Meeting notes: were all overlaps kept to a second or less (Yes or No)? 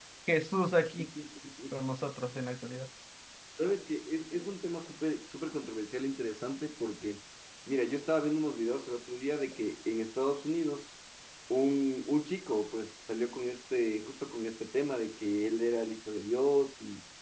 Yes